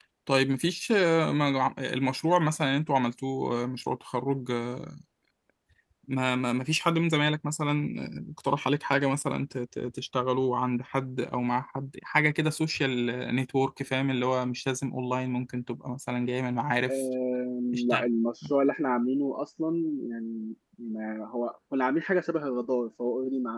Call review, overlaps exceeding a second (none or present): none